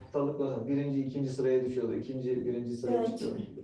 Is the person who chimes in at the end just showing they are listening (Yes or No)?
Yes